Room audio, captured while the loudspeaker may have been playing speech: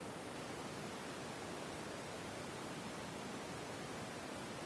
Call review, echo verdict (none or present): none